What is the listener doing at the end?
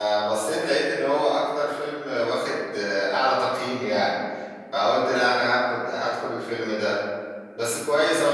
listening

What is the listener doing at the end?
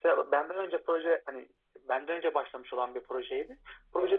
listening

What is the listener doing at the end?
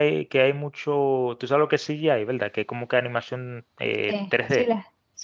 taking over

